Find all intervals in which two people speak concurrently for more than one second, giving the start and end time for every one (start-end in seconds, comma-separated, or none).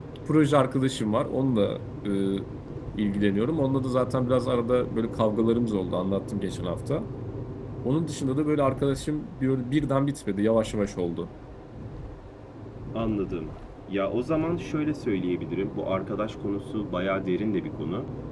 none